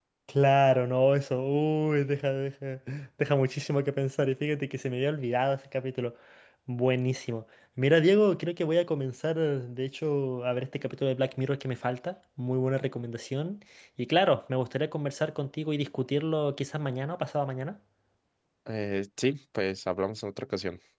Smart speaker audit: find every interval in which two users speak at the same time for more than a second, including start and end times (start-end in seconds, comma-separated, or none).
none